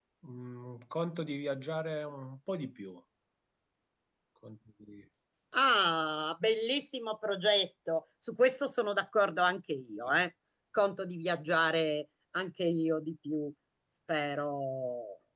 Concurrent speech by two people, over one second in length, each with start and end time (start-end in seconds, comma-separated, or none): none